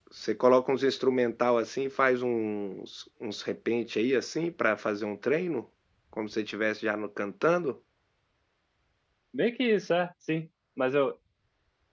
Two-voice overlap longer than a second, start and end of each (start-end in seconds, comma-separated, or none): none